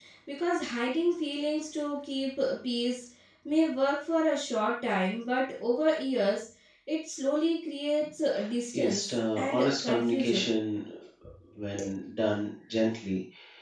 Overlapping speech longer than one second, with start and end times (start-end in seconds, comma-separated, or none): 8.7-10.5